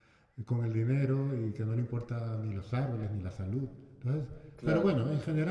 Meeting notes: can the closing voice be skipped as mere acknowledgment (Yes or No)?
Yes